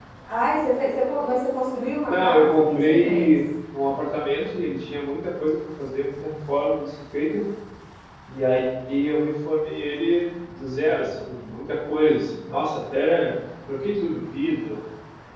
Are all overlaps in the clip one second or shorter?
No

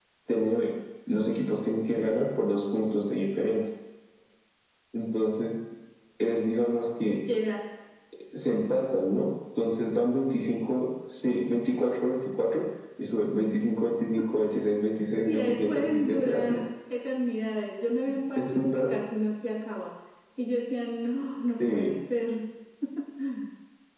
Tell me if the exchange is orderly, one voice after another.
No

